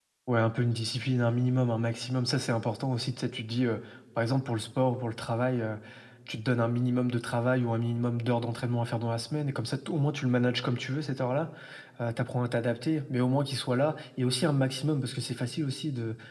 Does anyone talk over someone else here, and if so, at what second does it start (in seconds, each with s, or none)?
none